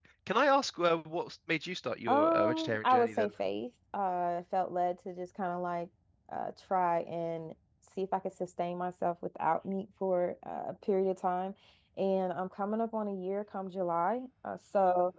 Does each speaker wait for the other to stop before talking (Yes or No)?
No